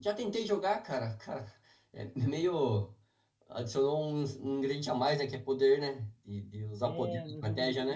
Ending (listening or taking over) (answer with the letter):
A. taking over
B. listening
A